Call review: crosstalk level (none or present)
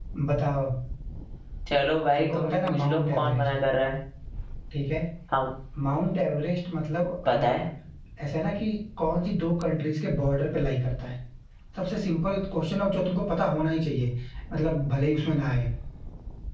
present